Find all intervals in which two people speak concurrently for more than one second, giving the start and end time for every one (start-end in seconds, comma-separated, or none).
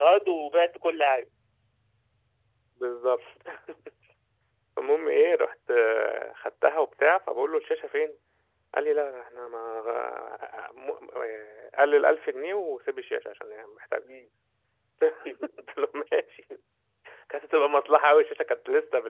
none